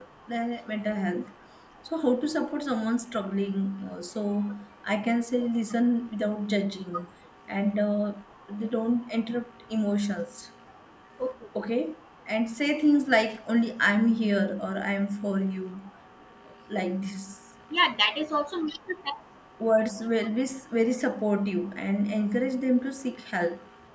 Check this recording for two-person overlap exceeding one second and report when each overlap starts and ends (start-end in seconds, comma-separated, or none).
none